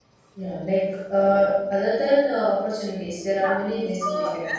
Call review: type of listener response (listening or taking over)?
taking over